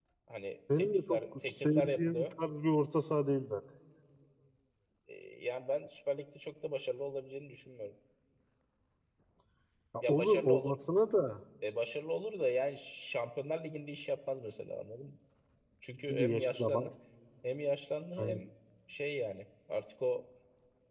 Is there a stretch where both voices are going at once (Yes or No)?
Yes